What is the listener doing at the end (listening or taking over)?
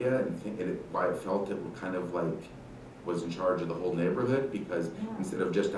listening